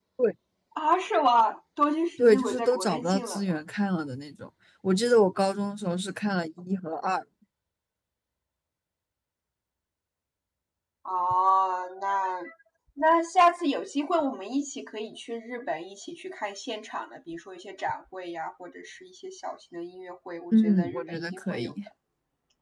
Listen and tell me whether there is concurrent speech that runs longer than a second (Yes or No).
Yes